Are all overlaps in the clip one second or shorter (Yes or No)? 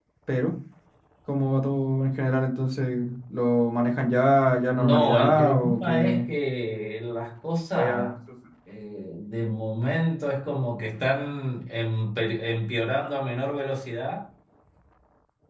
No